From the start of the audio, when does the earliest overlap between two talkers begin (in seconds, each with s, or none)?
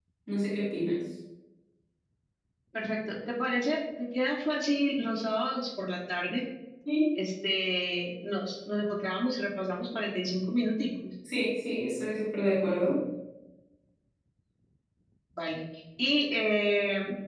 none